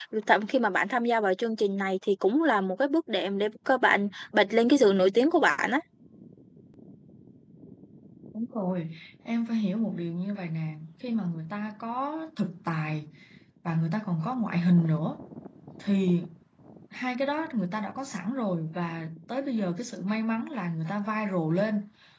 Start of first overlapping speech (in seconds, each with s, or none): none